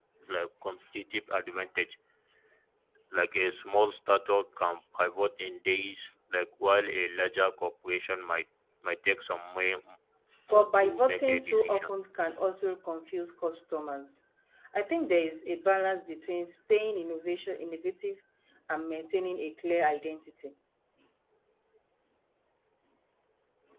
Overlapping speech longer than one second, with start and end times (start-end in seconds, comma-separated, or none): 10.5-11.9